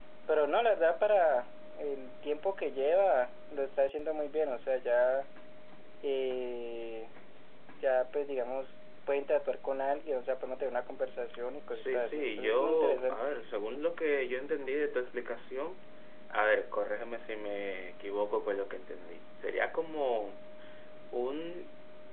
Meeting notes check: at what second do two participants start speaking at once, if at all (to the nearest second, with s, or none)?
12 s